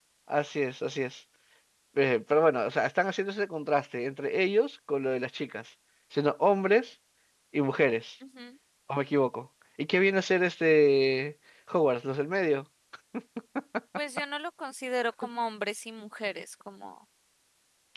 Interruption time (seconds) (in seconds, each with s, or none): none